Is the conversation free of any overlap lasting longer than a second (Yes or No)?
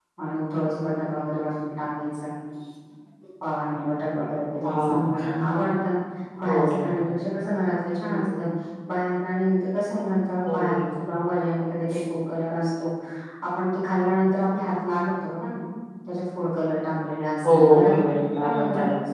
No